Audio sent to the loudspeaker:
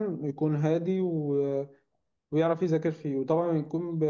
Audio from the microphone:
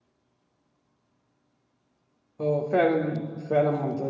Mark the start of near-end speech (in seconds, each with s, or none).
2.4 s